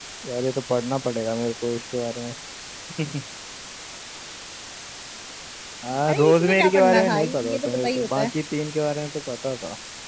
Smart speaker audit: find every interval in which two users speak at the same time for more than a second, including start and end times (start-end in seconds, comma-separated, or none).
6.1-8.3